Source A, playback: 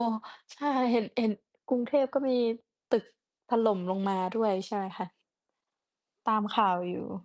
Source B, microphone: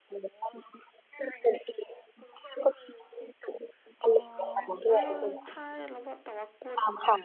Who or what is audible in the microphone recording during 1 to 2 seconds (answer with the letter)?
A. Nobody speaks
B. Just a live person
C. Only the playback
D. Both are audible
C